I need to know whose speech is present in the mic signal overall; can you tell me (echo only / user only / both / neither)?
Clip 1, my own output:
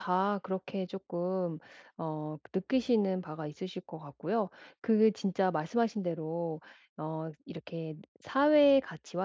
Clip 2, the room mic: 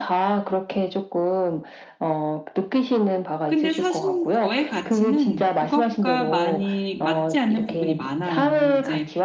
both